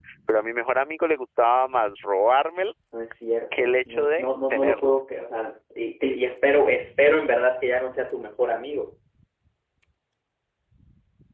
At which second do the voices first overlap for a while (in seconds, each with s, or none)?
3.5 s